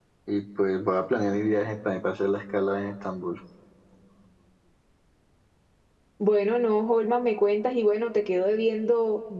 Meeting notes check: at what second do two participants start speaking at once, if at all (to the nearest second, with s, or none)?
none